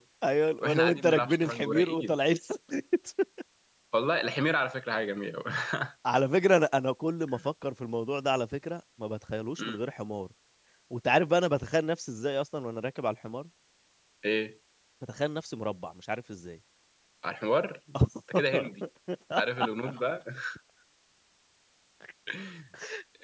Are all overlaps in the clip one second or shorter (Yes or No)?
No